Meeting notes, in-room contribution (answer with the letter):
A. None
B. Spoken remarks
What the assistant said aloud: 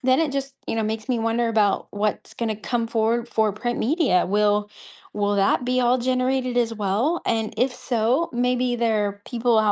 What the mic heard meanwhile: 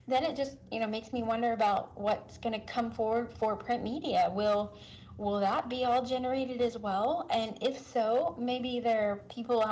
A